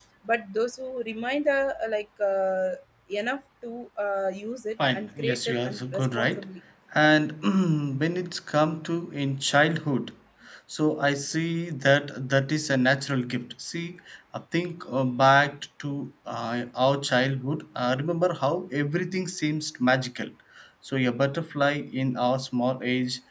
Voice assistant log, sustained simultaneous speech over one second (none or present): present